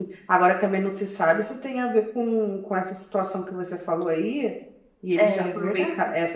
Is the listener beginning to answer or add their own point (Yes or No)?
No